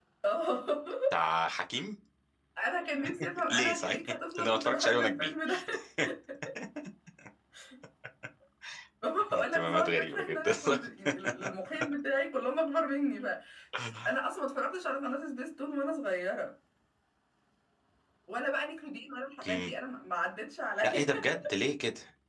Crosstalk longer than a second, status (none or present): present